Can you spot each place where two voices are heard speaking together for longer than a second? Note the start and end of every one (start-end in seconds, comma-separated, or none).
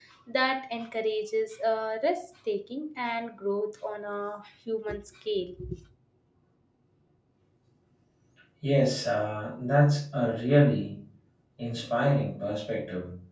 none